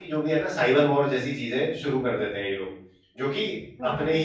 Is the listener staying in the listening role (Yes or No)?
Yes